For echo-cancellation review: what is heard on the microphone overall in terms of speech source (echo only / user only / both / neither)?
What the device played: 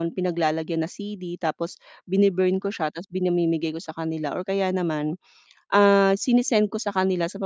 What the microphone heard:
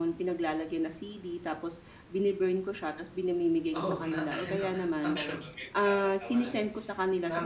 both